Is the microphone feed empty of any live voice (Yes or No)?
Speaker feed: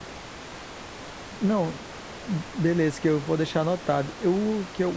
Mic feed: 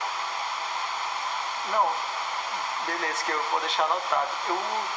Yes